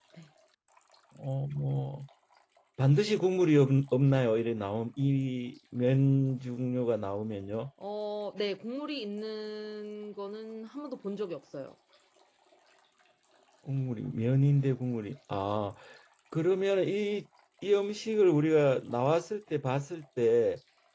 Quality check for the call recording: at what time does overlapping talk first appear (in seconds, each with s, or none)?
none